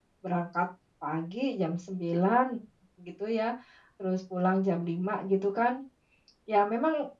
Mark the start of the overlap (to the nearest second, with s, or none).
none